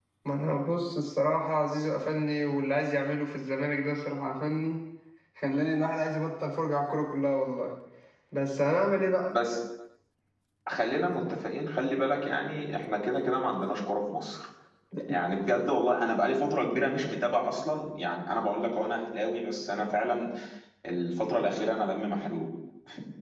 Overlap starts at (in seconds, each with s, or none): none